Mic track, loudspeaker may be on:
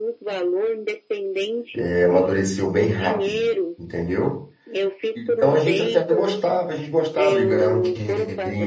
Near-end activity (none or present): present